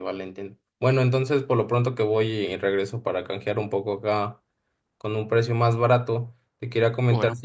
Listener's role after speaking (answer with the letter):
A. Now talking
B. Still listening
B